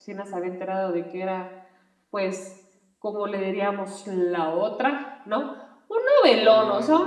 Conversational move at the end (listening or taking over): listening